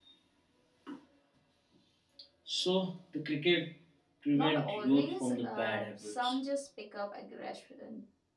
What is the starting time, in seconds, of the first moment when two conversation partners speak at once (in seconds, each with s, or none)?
4.3 s